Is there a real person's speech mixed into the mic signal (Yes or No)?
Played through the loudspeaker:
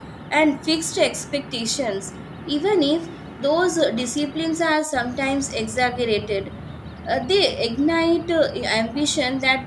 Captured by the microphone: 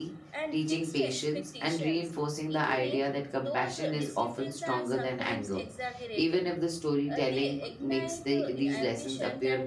Yes